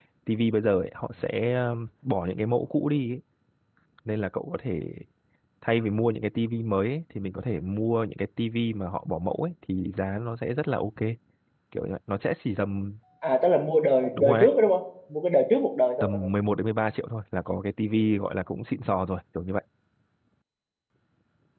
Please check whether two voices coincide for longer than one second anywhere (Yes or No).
No